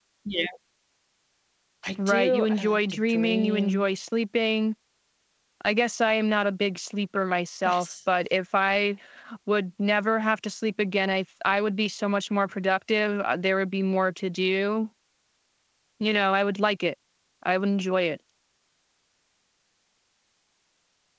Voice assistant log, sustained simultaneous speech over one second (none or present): present